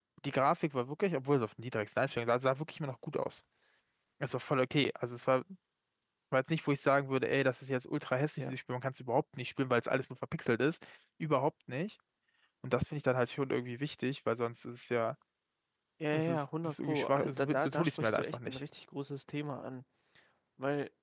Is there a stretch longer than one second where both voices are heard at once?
Yes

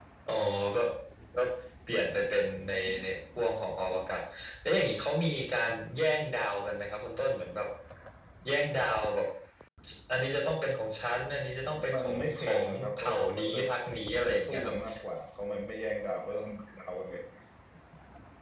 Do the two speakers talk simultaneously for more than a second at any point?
Yes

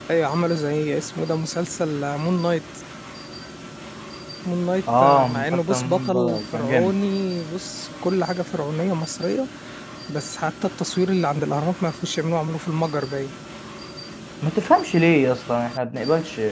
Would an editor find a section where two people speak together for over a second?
Yes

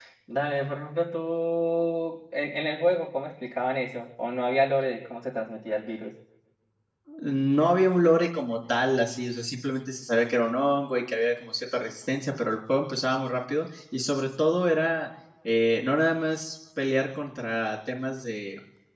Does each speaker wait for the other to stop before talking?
Yes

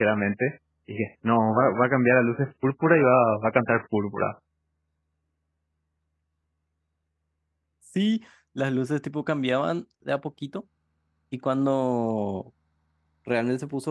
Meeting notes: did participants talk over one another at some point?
No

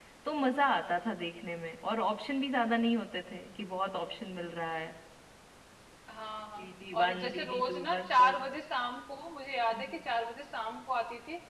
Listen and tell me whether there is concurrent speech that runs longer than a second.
Yes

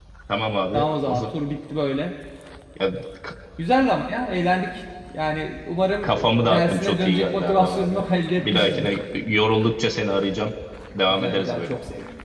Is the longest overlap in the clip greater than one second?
Yes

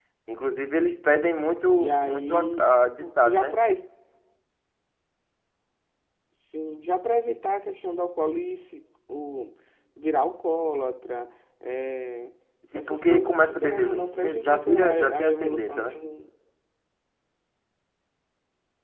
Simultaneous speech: Yes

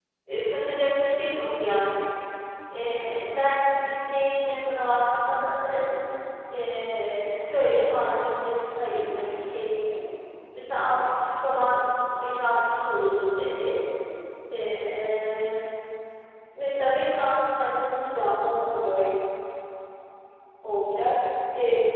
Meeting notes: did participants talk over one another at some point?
No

